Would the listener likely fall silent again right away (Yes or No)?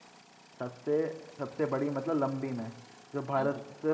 Yes